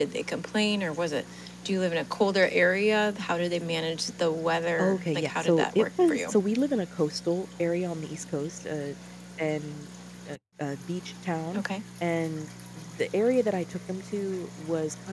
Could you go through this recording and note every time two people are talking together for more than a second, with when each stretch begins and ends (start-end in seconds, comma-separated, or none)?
4.8-6.3